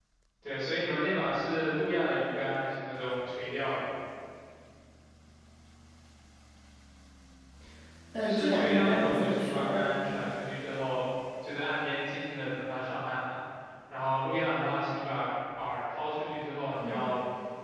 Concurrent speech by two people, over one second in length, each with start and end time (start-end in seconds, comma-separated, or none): 8.2-10.0